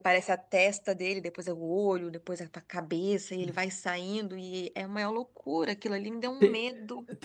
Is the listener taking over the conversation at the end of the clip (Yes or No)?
Yes